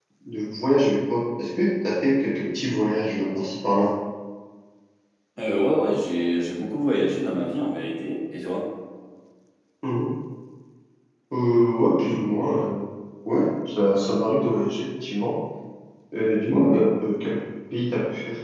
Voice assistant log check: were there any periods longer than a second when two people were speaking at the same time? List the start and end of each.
none

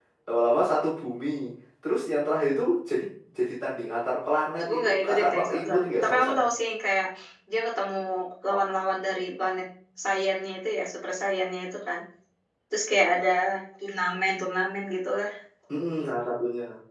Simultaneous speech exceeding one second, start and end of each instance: 4.6-6.4

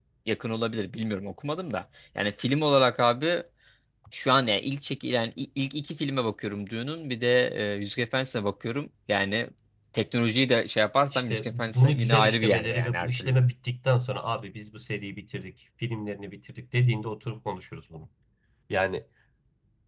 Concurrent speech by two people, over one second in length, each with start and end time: 11.1-13.4

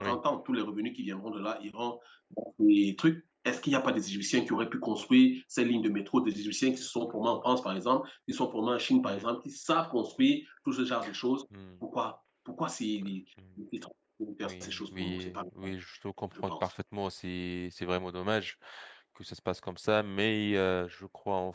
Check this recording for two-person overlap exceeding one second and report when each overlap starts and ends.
14.4-15.7

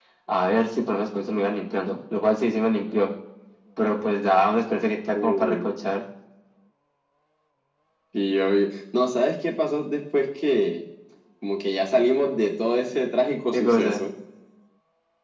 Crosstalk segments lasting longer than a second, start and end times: none

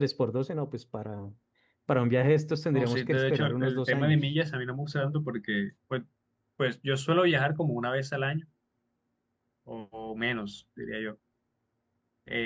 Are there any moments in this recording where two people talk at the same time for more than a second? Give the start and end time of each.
2.7-4.2

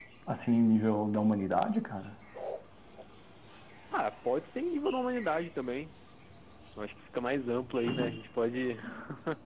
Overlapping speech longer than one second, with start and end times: none

